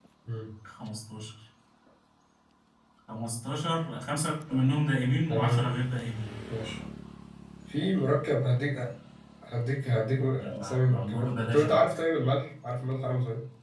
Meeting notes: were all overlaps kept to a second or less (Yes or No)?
No